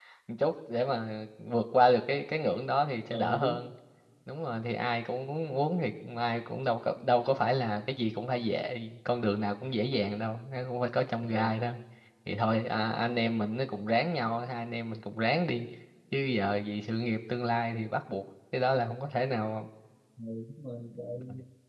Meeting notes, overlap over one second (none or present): none